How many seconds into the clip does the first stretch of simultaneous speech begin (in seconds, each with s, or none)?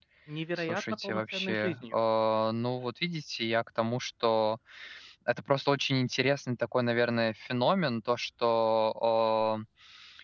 0.6 s